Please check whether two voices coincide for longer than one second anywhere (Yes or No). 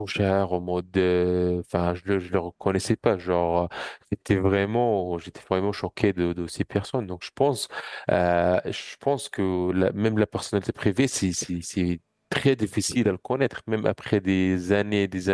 No